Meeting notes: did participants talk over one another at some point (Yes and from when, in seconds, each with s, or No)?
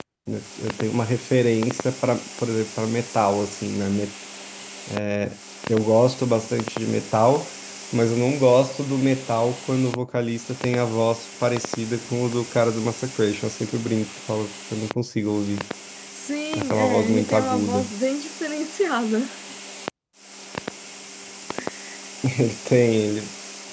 Yes, from 16.6 s